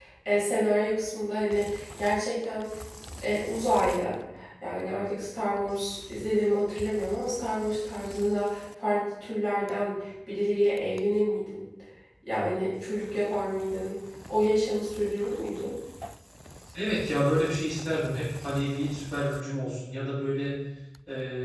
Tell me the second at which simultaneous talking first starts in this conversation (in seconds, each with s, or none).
none